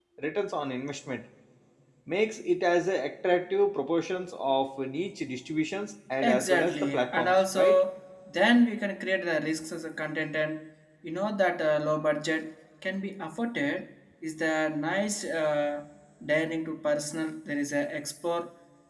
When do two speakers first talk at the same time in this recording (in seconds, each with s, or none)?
6.2 s